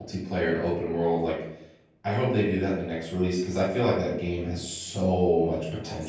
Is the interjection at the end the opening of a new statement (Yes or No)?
Yes